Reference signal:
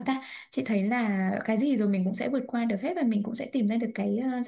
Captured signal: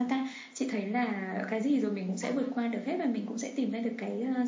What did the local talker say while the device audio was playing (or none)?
ừ, tám năm